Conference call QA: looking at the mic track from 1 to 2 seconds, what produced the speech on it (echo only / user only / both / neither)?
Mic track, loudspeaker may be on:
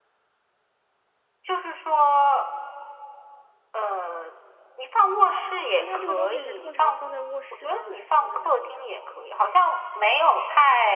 echo only